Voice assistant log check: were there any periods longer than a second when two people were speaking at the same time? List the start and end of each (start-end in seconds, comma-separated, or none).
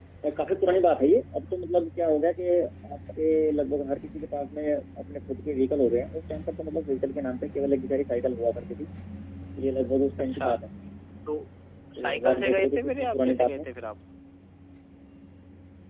12.0-13.7